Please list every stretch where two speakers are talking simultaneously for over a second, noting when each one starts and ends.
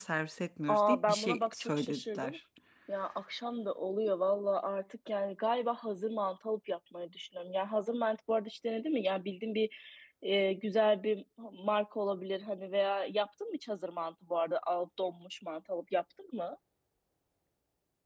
0.7-2.4

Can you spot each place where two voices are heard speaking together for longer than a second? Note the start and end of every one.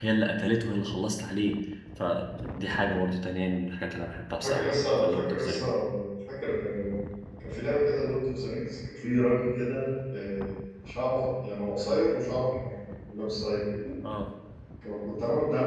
4.4-5.6

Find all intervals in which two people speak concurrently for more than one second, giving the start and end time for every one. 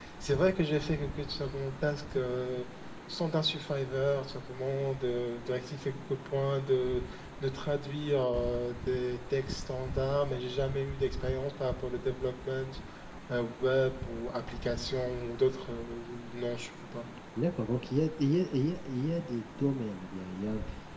none

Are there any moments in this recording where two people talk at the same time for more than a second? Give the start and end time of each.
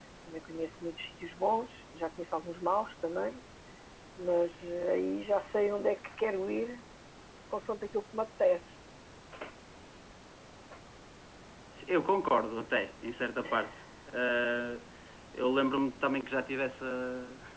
none

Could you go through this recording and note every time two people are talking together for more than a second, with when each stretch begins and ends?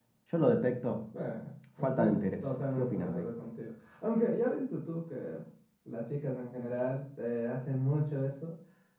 1.8-3.3

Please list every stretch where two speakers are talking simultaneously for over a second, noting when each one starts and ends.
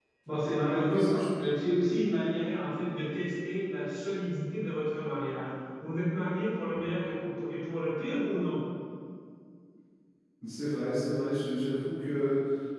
none

